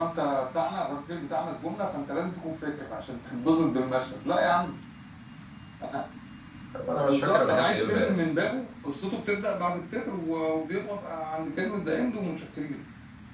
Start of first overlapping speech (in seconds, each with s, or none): 7.0 s